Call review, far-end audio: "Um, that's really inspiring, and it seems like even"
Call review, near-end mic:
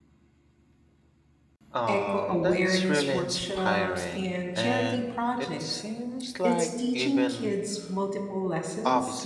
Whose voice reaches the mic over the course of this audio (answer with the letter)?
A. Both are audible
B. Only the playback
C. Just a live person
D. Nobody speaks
A